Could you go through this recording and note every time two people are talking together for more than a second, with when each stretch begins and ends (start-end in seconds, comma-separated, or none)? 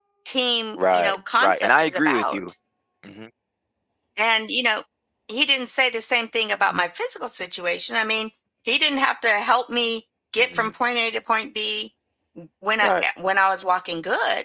0.9-2.4